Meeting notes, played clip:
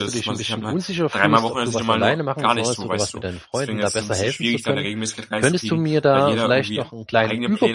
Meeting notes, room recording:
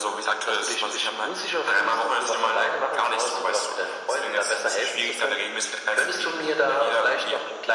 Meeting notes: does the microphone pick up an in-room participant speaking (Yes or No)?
No